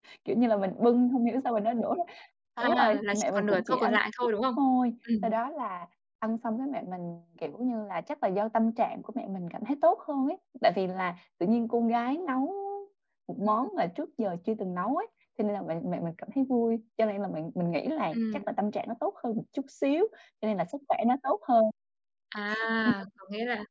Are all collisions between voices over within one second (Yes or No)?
No